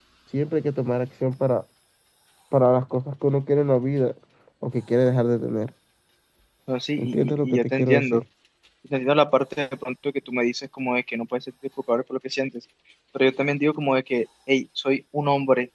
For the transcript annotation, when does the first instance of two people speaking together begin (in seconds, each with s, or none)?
7.0 s